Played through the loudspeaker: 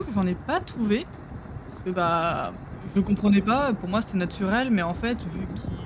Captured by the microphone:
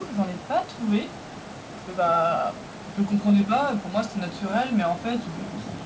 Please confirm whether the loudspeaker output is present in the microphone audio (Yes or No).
Yes